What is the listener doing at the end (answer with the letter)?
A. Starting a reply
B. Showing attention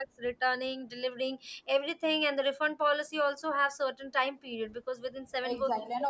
A